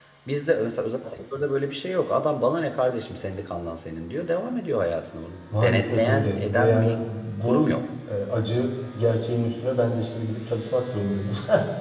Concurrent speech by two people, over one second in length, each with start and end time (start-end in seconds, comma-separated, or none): 5.6-7.0